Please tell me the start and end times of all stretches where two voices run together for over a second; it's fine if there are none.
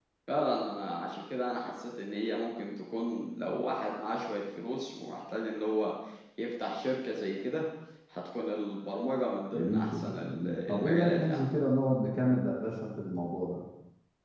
9.5-11.5

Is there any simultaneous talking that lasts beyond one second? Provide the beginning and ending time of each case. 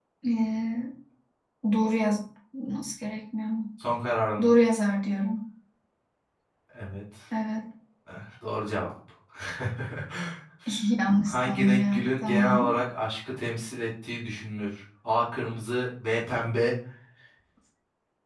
11.2-12.7

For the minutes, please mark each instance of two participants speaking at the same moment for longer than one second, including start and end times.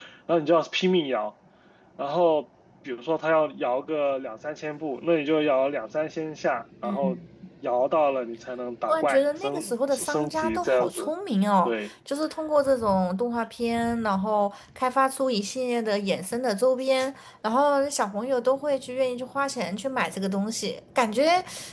8.9-11.1

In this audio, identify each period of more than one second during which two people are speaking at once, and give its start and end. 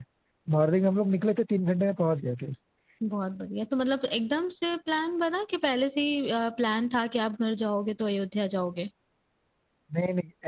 none

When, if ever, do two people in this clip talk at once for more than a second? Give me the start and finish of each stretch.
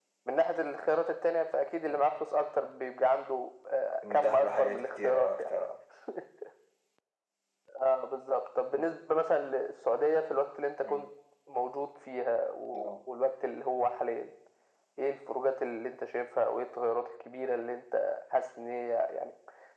4.0-5.4

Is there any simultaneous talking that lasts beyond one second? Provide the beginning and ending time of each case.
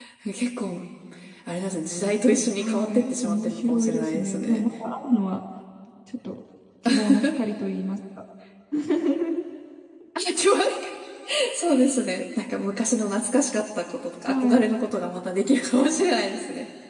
2.6-4.6

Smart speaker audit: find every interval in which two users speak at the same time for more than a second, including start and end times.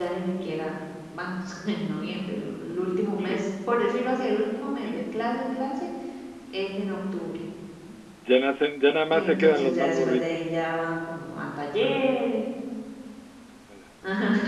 9.1-10.7

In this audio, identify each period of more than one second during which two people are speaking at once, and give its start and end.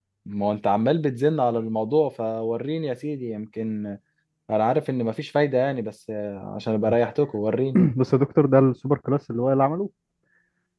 none

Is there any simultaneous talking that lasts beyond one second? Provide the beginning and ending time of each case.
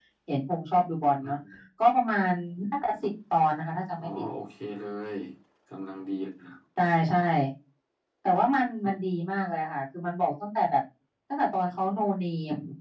none

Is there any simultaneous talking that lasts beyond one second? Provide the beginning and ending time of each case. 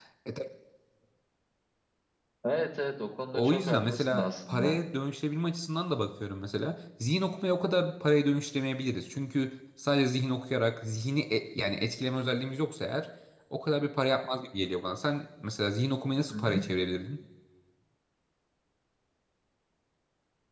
3.3-4.8

